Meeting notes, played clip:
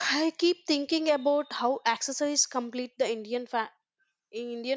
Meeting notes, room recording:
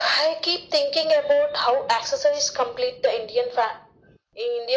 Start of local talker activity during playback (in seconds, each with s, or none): none